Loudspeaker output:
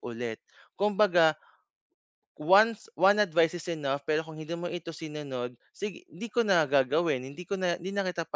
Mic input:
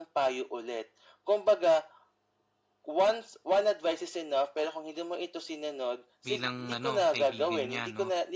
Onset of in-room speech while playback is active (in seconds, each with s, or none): 6.3 s